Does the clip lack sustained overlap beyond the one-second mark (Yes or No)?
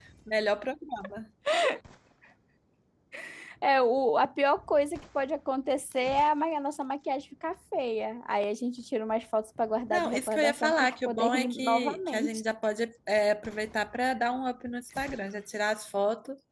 No